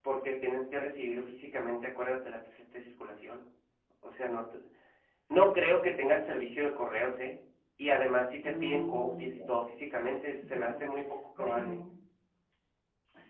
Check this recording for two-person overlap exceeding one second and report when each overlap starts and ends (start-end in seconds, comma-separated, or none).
8.4-9.7